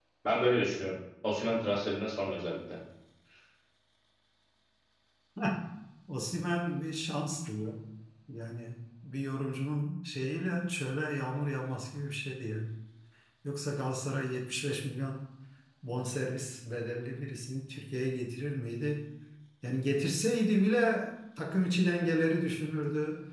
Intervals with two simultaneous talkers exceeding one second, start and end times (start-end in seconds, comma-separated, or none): none